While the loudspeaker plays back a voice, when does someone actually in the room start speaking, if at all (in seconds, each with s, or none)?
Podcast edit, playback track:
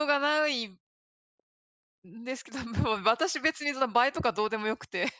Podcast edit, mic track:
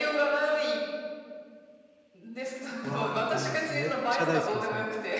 2.8 s